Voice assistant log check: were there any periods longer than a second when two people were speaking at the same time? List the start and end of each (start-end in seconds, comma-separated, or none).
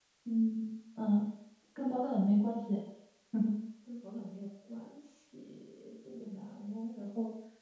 none